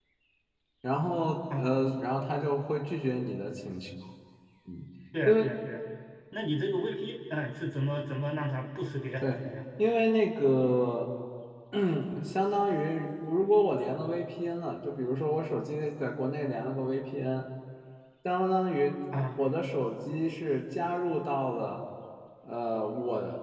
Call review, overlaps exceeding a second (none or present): none